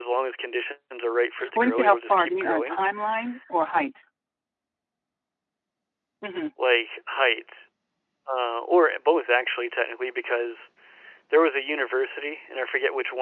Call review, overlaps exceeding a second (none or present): present